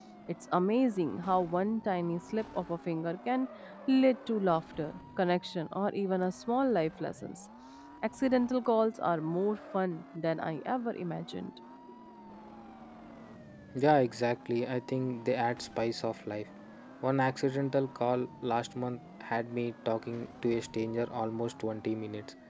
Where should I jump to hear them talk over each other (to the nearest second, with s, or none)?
none